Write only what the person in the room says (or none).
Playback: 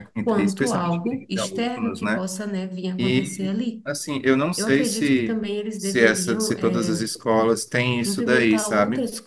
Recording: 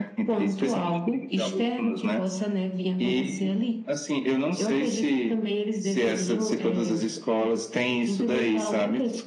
none